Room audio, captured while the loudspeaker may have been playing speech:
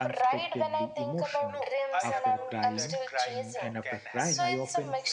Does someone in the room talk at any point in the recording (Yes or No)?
Yes